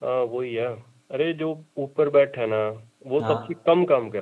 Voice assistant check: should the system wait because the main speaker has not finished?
Yes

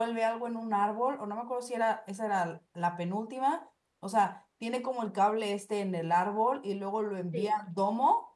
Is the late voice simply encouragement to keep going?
Yes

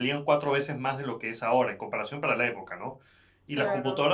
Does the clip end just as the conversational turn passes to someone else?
No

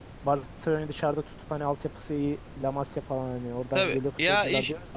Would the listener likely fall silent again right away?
No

